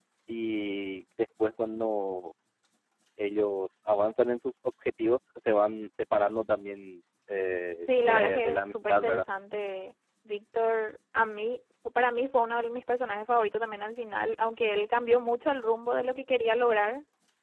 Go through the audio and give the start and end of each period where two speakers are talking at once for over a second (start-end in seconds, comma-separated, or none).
8.0-9.2